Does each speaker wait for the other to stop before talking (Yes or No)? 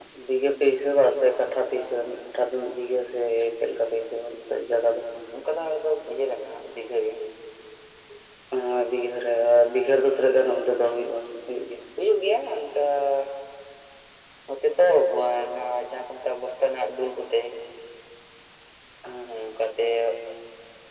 Yes